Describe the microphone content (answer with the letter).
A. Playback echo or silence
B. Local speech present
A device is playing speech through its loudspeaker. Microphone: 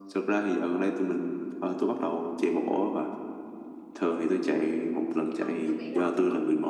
B